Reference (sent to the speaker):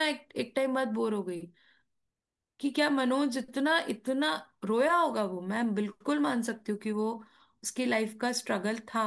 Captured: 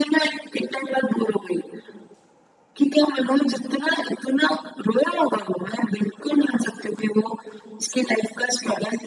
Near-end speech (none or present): none